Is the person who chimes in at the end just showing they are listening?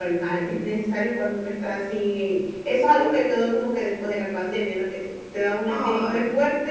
Yes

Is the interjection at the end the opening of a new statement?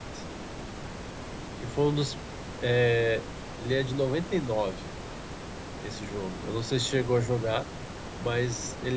No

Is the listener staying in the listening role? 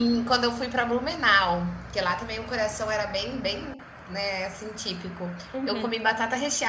Yes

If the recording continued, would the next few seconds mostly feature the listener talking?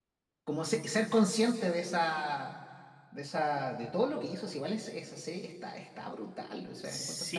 Yes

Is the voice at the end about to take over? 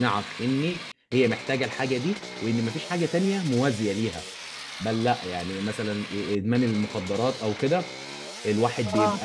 No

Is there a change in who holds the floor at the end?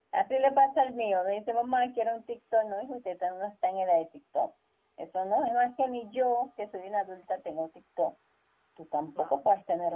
No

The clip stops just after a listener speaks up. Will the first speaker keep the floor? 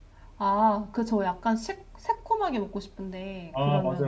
No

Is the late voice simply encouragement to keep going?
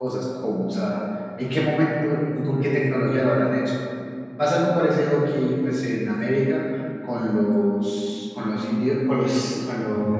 Yes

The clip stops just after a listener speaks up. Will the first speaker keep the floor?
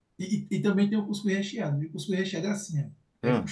Yes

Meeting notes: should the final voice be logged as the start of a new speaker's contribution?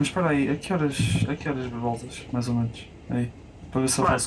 No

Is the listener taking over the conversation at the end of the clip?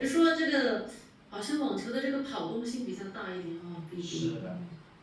Yes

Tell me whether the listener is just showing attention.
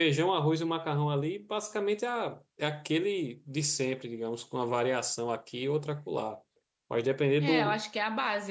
No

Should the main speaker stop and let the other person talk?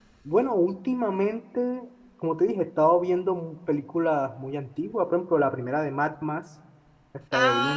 Yes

